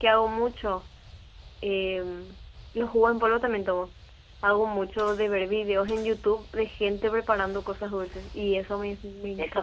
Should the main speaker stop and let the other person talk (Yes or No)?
Yes